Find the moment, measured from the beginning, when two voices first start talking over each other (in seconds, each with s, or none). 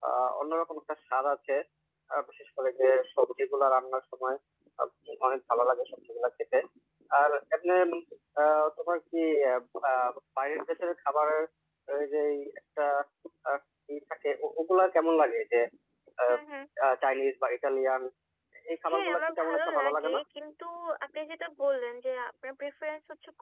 18.9 s